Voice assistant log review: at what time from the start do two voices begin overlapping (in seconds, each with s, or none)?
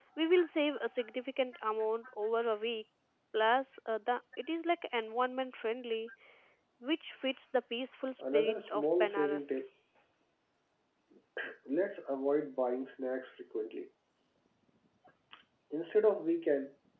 8.2 s